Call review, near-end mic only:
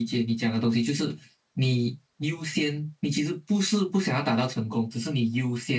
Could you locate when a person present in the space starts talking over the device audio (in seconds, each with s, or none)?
none